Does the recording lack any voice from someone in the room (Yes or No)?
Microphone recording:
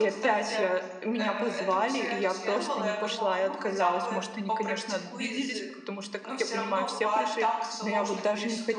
No